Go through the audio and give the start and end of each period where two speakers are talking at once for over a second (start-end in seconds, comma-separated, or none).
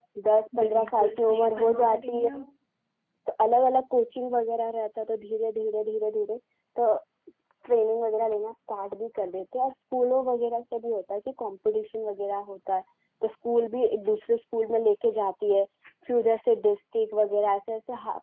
0.6-2.4